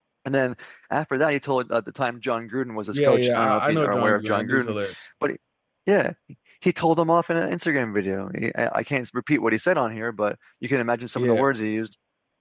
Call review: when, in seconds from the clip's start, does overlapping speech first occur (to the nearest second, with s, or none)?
3 s